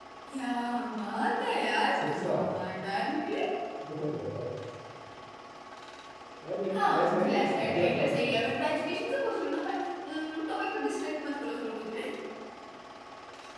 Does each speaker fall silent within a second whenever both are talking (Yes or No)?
No